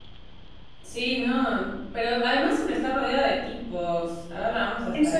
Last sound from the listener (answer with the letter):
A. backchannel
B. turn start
B